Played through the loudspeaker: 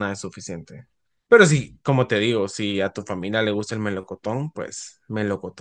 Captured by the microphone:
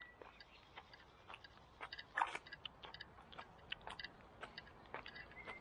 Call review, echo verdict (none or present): none